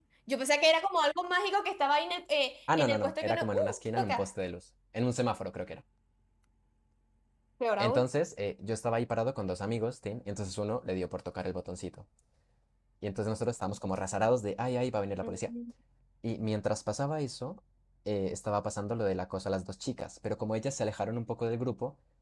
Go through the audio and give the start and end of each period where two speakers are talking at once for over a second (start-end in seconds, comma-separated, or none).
2.8-4.2